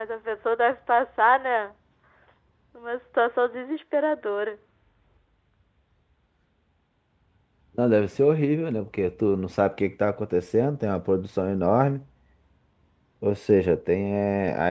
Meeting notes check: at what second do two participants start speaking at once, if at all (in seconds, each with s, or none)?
none